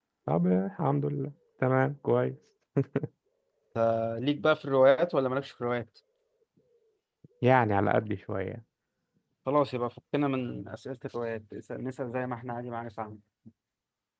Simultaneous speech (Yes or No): No